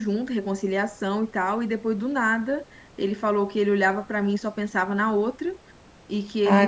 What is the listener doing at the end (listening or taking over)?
listening